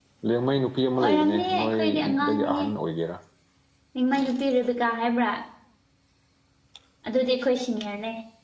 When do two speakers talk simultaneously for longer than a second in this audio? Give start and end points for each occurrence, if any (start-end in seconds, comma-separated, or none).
1.0-2.6